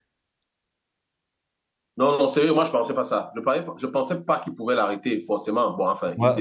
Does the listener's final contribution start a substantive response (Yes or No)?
Yes